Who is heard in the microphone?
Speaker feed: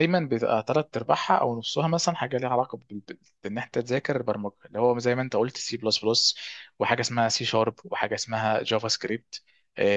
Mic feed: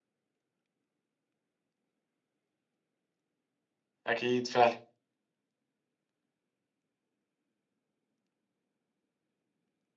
user only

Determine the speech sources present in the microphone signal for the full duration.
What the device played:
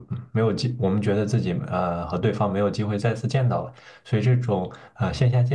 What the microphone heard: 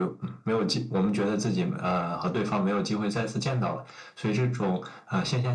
echo only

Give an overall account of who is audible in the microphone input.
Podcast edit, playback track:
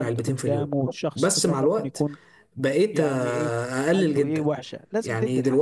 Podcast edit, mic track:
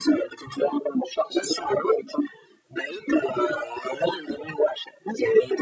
echo only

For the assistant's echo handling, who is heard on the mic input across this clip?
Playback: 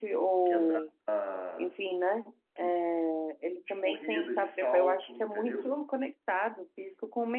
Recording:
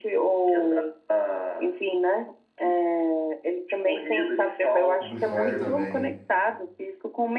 both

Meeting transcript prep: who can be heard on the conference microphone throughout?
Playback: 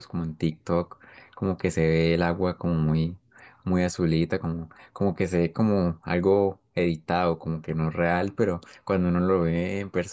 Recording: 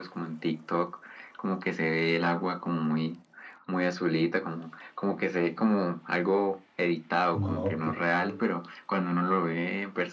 both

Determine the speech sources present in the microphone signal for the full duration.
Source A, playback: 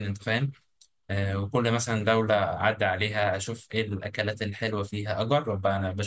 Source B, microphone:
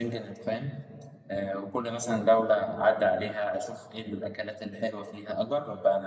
echo only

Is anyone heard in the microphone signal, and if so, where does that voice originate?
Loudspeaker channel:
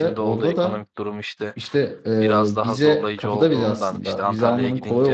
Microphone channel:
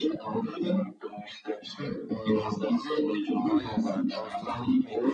both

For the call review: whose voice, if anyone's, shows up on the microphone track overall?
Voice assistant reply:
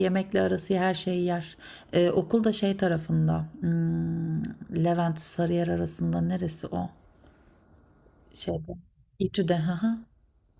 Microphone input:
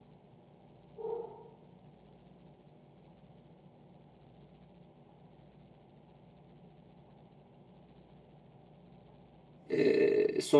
user only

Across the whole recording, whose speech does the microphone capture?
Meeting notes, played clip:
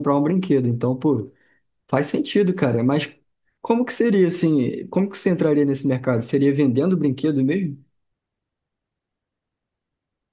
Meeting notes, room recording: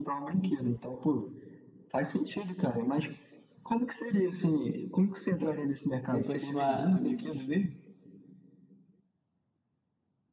both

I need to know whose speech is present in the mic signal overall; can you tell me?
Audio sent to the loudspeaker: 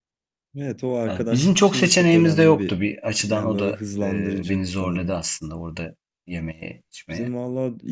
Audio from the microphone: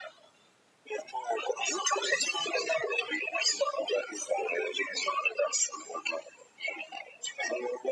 echo only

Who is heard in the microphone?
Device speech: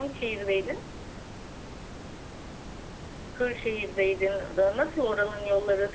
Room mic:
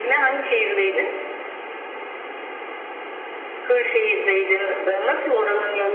echo only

